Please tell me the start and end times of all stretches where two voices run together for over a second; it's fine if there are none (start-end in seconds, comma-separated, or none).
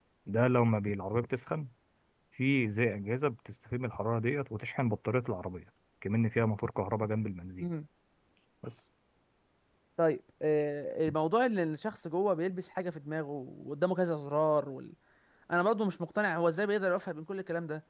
none